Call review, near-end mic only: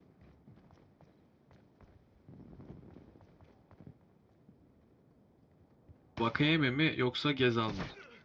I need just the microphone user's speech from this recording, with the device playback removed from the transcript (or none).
Vakayeme mi yoksa Gezal mı?